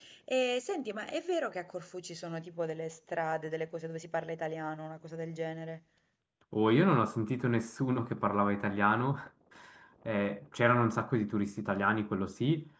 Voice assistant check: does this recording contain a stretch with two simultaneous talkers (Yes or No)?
No